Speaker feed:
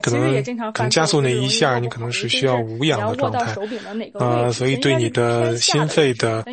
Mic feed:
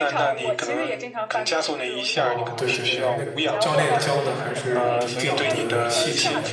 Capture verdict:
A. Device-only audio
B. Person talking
B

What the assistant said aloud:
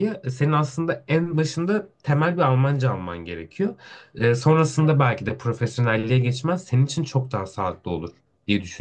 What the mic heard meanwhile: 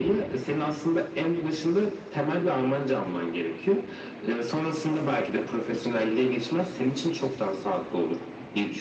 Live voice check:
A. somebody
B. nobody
B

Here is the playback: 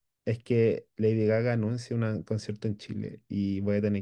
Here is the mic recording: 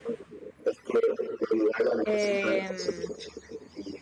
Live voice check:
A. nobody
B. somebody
B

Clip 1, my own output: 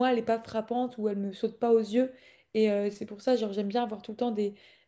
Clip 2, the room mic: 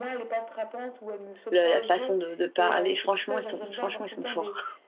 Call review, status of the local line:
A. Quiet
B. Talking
B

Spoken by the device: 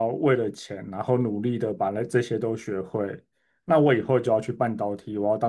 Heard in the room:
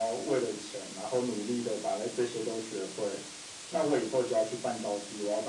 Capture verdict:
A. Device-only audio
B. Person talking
A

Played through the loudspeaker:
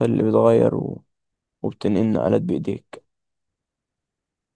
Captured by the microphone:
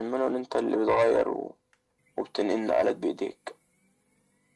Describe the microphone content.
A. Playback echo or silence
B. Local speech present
A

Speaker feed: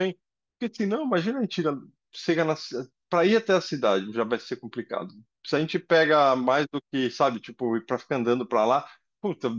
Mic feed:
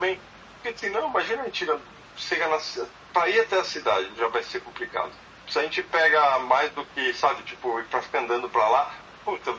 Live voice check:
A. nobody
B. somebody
A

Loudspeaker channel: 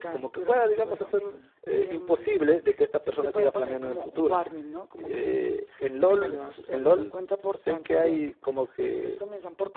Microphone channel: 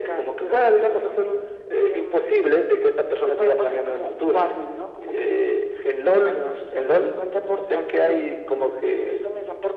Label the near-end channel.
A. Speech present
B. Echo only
B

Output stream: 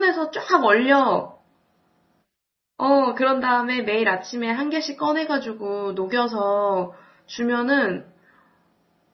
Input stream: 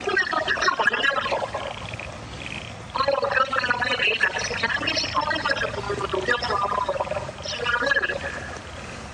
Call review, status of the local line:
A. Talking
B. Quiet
B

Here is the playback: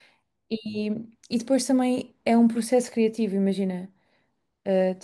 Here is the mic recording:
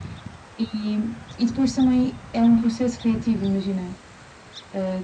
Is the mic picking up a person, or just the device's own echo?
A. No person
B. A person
A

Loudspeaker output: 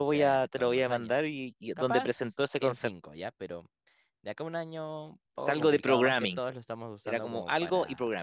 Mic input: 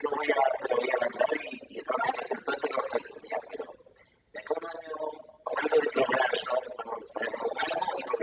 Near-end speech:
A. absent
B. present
A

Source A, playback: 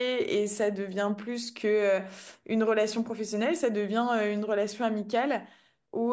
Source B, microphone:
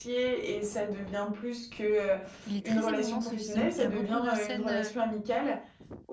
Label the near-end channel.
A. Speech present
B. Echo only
A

